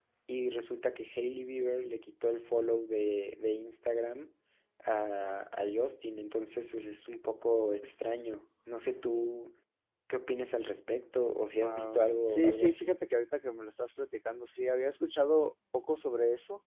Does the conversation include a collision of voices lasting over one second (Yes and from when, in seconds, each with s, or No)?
Yes, from 11.6 s